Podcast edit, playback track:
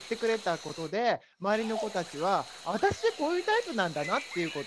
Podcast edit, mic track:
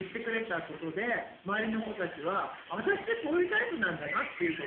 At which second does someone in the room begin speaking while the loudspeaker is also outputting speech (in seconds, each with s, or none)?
none